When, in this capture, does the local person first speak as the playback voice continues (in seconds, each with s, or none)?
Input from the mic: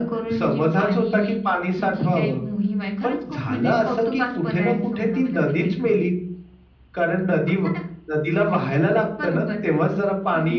none